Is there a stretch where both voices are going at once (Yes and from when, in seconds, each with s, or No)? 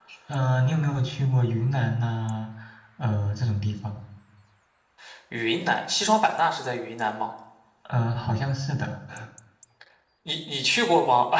No